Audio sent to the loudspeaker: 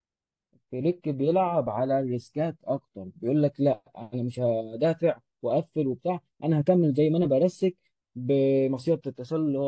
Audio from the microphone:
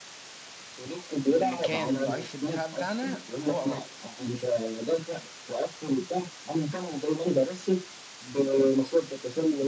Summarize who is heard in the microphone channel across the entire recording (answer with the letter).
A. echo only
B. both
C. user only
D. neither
B